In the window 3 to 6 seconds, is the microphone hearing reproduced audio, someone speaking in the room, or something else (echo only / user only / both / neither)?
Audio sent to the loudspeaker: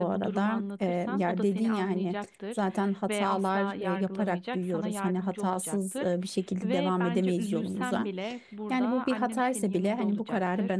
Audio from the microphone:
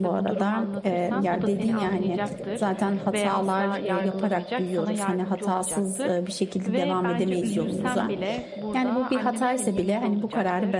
echo only